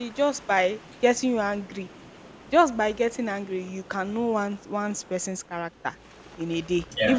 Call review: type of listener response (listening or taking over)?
listening